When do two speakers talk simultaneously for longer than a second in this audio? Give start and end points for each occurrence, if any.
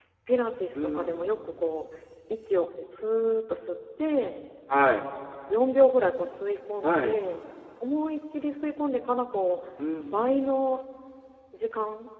none

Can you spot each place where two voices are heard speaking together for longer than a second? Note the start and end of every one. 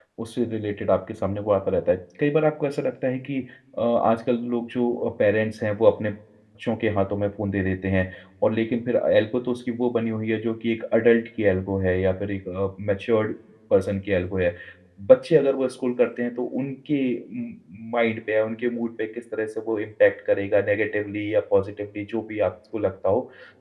none

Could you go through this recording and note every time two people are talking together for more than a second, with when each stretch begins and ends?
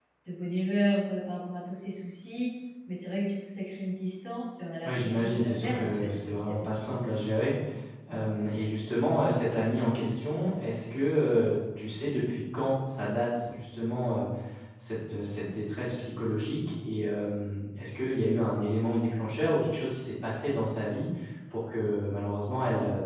4.8-6.9

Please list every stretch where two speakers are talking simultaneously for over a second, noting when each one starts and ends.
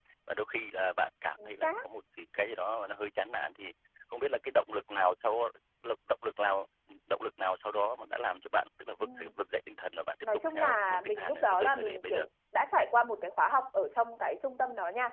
10.5-12.2

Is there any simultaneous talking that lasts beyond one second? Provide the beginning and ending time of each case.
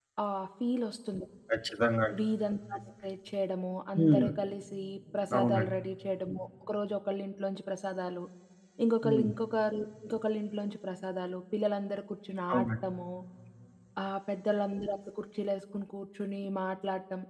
none

